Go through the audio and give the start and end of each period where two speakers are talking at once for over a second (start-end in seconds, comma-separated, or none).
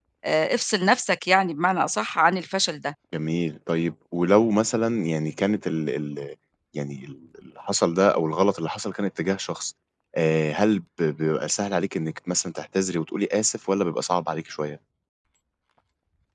none